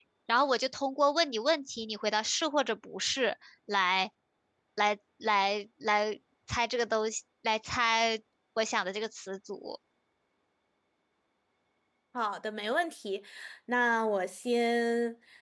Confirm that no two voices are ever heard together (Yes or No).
Yes